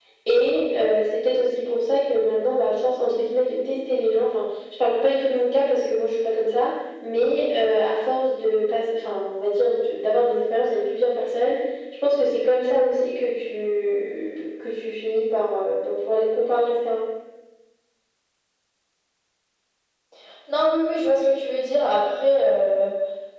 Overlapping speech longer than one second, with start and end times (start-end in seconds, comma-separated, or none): none